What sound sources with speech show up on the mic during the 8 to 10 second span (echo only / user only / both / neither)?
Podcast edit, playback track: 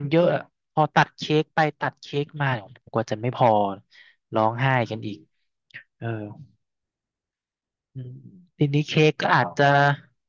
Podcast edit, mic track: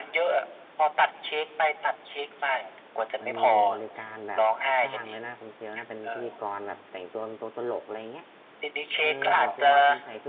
both